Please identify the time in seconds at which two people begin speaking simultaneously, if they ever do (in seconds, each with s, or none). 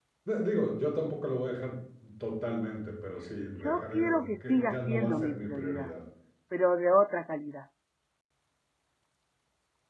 3.6 s